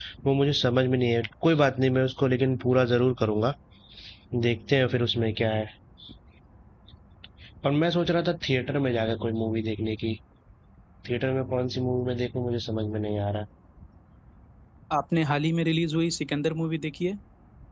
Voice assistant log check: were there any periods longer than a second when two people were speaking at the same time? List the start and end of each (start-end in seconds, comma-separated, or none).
none